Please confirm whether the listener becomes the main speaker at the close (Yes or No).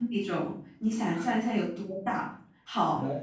No